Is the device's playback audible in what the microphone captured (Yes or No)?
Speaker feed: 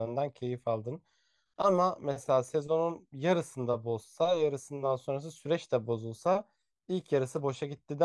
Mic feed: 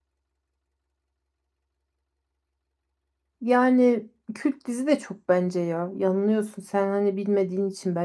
No